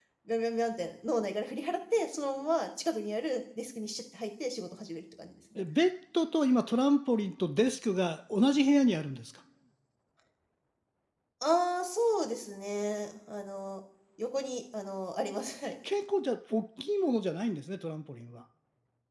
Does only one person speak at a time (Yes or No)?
Yes